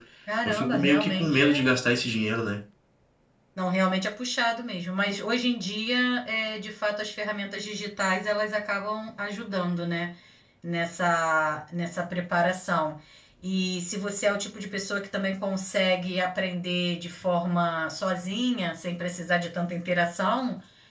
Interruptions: present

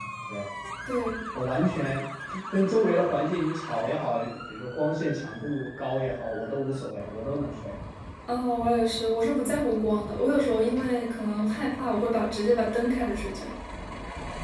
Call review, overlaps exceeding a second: none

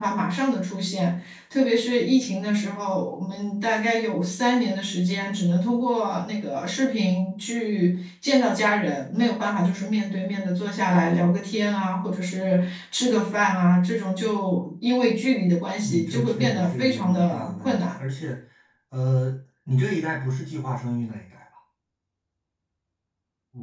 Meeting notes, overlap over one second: present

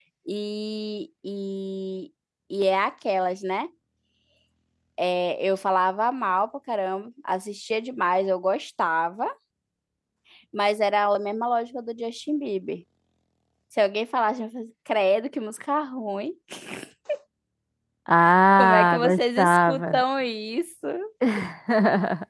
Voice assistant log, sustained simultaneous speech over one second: present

